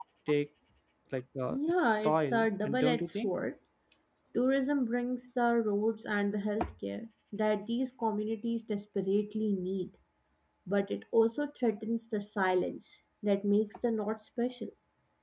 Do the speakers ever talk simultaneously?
Yes, from 1.5 s

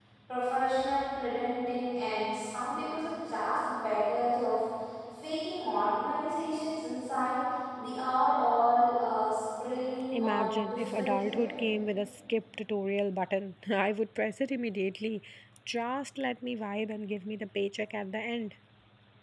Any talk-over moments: Yes, from 10.1 s

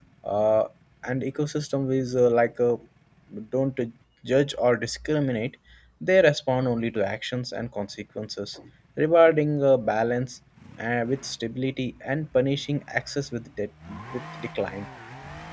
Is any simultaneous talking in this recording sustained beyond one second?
No

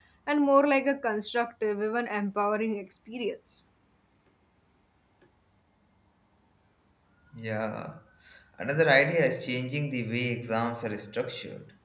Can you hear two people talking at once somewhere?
No

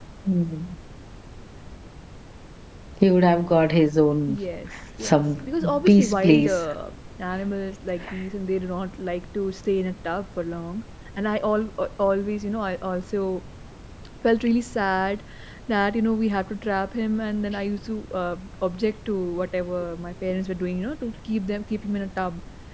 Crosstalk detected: Yes, from 5.0 s

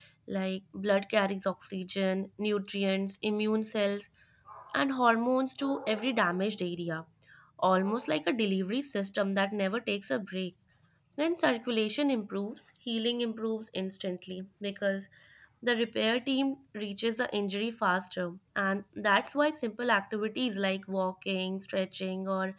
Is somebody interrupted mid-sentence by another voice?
No

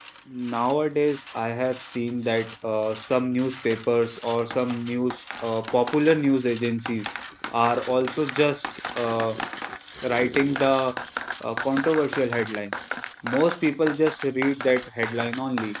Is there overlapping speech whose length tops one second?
No

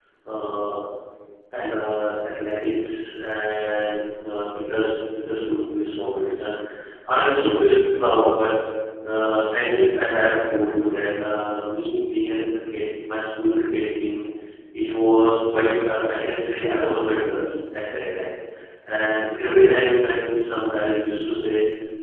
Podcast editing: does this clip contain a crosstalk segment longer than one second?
No

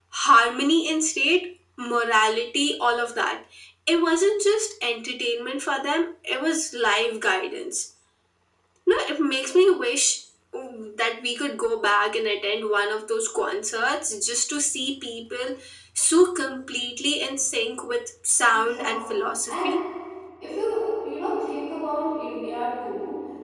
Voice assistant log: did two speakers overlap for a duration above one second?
Yes, from 18.5 s

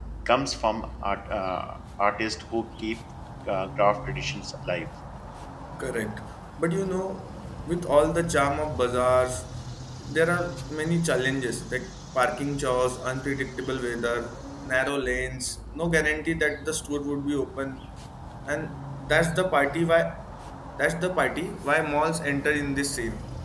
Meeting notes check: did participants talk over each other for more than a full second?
No

